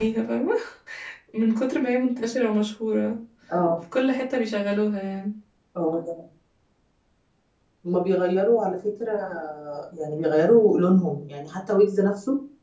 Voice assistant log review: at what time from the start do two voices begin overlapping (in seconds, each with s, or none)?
none